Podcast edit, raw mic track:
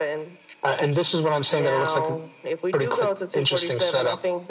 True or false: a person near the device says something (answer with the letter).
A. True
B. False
B